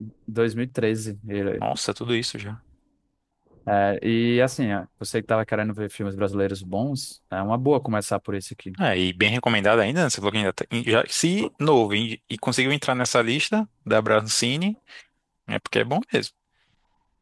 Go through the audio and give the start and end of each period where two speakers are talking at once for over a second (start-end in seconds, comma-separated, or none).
none